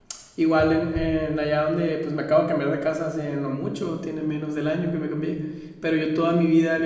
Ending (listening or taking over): listening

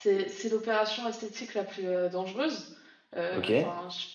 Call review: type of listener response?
listening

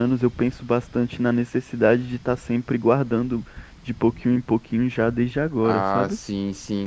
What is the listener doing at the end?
taking over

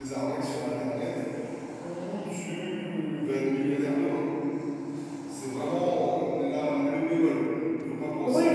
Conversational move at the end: taking over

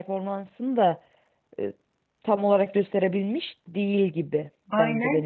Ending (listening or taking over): taking over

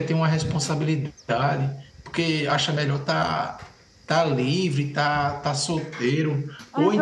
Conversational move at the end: taking over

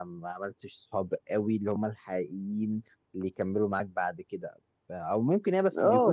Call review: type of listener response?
taking over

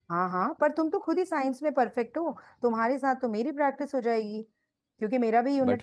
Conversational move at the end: listening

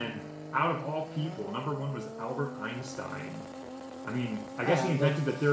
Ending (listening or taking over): listening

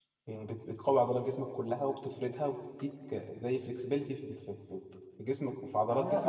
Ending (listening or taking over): taking over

